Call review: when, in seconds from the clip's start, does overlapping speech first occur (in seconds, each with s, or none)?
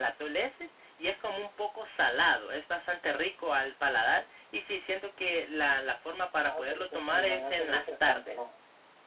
6.4 s